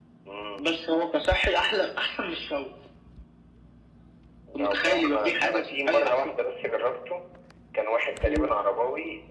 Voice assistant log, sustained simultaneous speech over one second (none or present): present